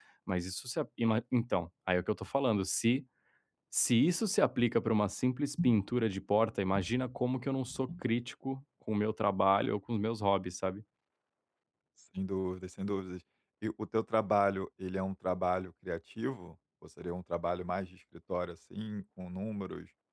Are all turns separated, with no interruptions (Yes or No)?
Yes